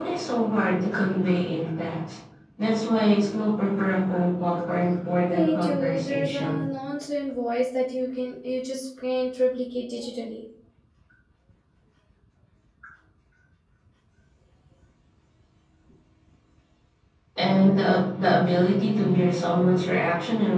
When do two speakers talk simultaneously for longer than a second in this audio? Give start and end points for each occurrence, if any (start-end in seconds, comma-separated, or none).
5.3-6.6